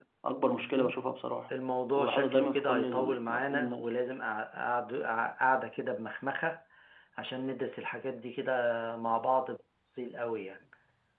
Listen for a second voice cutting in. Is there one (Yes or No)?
Yes